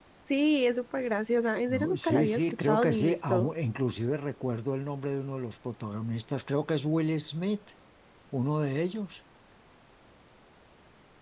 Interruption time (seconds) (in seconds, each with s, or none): 1.7 s